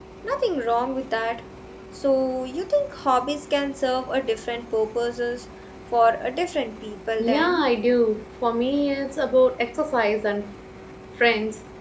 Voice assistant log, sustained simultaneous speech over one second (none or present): none